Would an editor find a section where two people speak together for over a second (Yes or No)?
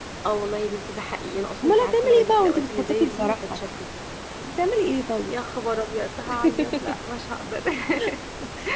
Yes